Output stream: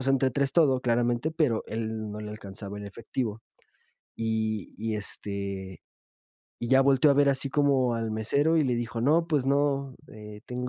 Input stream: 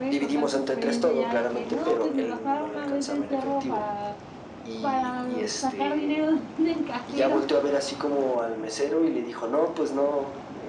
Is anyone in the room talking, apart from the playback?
Yes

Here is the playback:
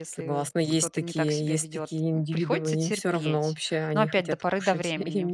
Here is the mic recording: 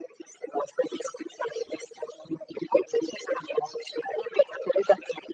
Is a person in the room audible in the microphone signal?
No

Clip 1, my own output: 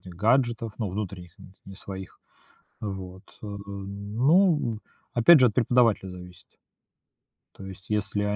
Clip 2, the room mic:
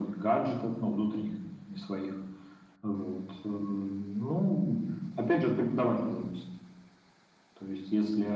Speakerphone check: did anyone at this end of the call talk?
No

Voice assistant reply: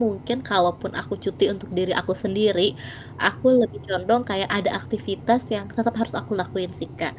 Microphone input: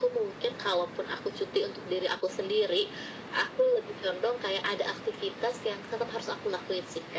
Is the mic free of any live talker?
Yes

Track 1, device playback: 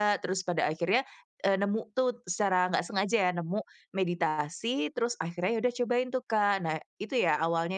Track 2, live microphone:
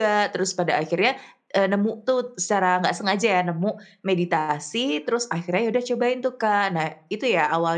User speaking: No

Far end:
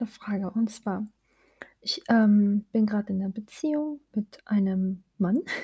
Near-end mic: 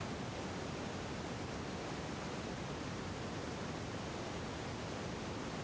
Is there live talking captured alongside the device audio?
No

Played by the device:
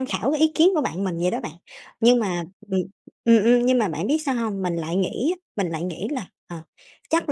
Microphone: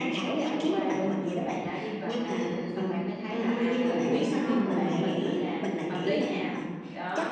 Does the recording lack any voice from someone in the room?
No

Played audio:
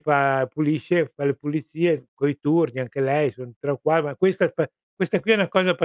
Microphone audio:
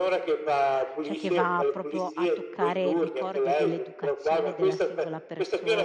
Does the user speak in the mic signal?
Yes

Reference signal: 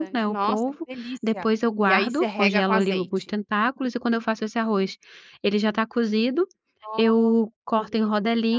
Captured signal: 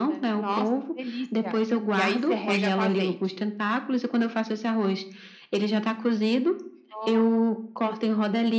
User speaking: No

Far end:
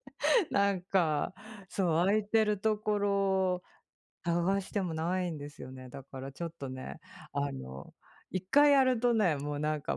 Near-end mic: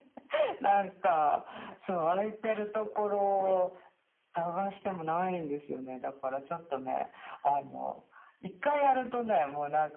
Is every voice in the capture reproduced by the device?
No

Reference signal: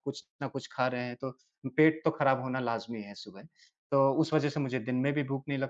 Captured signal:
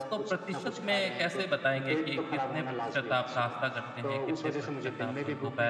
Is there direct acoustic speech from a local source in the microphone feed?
Yes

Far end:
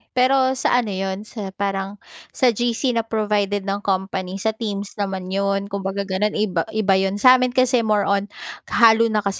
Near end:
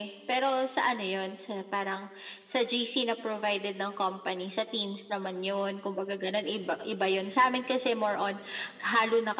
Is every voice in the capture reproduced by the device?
Yes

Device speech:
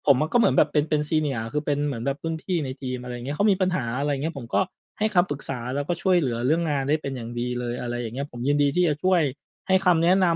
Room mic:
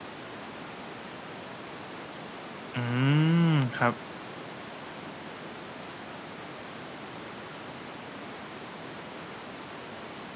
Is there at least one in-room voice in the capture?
Yes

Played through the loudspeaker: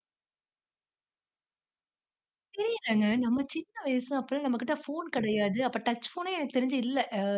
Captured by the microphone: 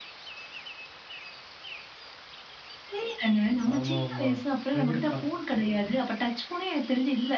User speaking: Yes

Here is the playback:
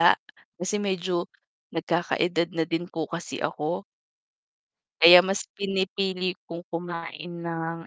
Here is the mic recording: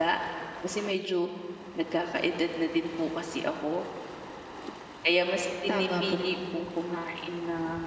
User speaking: Yes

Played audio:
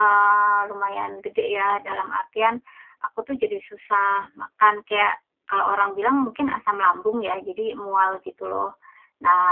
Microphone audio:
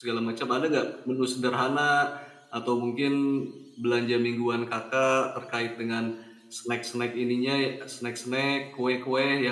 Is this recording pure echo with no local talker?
No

